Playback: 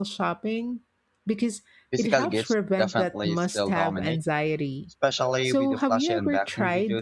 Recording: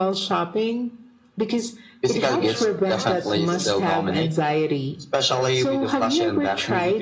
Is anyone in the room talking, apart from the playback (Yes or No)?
Yes